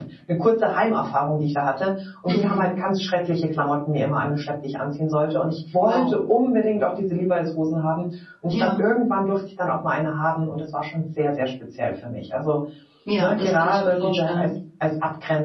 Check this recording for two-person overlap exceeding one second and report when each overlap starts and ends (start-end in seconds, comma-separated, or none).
13.2-14.5